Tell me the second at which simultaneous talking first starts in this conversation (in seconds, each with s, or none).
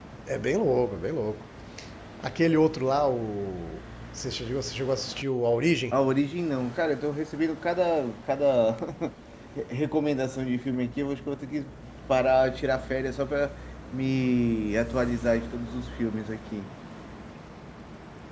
none